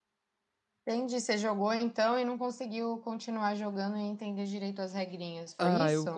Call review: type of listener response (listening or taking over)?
taking over